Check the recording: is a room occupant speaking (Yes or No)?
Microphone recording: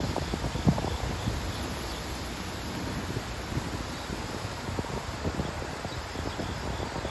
No